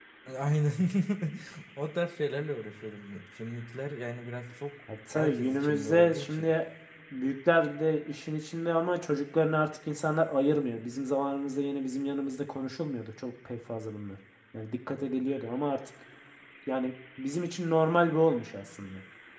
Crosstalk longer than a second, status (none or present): present